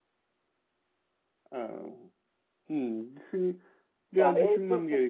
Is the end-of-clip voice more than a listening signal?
Yes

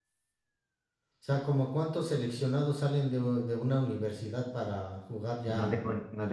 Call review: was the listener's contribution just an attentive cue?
No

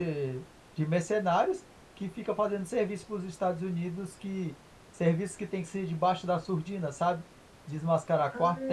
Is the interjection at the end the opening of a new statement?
No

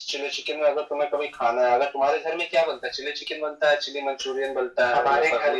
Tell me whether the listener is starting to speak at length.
Yes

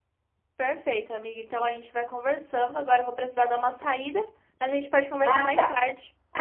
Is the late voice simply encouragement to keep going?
No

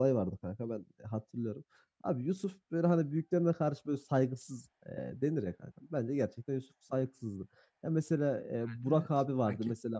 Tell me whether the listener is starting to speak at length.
No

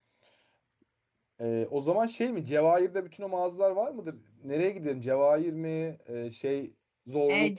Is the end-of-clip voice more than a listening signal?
Yes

